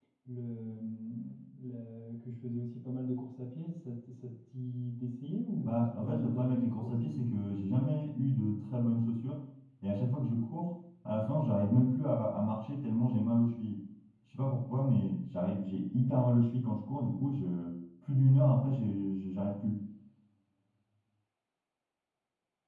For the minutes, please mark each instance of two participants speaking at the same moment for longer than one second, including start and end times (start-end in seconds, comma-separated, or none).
5.6-7.3